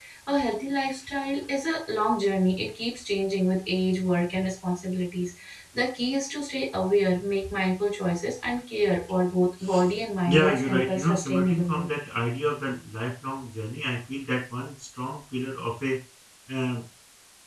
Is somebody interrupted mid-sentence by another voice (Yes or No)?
Yes